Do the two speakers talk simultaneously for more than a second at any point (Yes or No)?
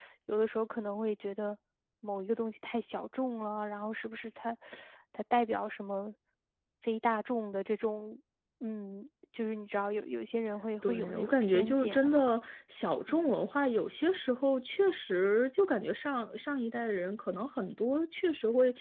Yes